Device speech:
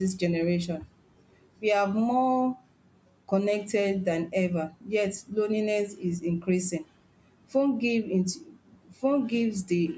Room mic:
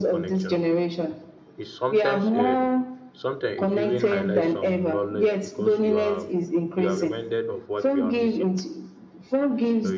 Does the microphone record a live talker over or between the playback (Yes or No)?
Yes